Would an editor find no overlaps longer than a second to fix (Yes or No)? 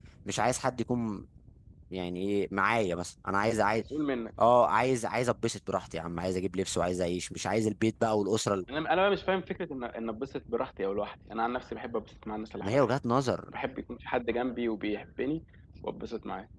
Yes